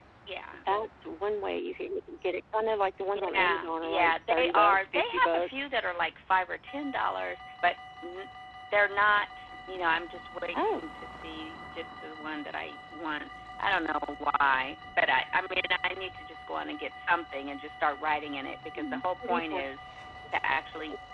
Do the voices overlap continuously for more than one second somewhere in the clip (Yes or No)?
Yes